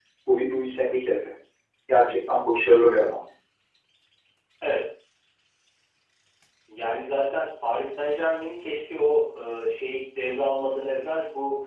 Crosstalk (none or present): none